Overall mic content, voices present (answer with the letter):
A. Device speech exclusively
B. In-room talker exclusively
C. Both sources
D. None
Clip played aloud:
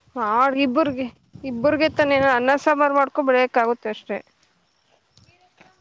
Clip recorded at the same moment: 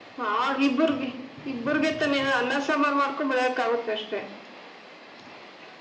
A